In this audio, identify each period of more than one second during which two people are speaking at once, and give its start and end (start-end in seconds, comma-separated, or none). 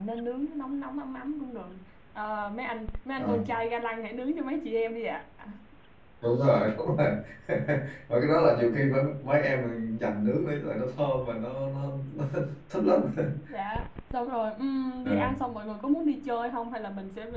none